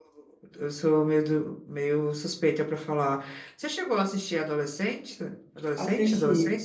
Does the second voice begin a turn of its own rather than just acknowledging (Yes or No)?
Yes